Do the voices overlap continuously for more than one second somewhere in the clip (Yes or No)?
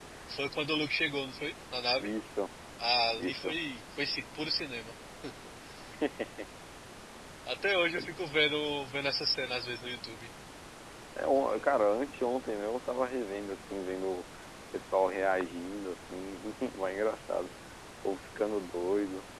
No